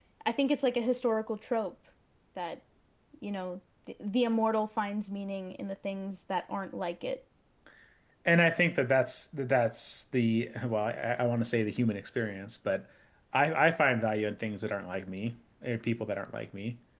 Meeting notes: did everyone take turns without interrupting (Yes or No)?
Yes